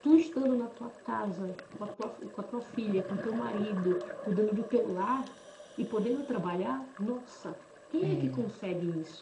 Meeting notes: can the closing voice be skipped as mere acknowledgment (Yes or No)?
Yes